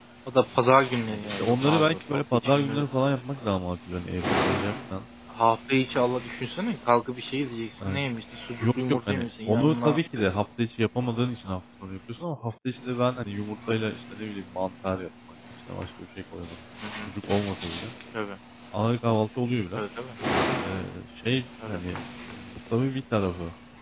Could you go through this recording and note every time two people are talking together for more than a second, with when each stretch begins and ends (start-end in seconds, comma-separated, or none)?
1.1-2.8, 8.6-10.0